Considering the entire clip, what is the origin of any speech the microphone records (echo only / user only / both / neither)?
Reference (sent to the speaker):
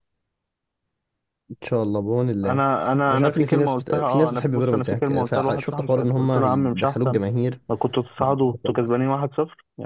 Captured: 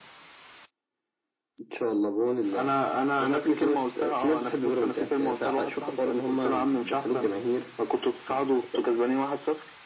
echo only